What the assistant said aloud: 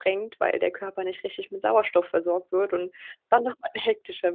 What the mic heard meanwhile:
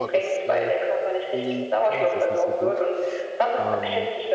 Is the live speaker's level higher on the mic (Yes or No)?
No